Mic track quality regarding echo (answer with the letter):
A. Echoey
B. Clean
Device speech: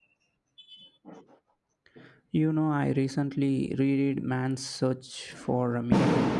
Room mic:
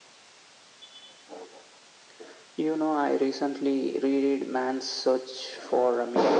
A